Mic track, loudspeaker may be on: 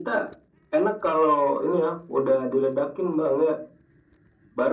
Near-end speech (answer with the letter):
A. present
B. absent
B